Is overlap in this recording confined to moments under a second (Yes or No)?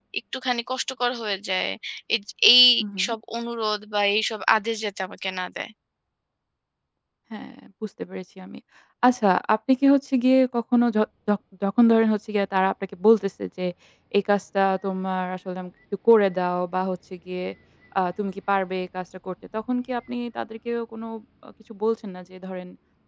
Yes